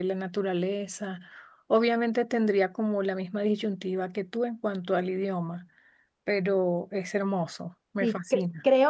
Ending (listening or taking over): taking over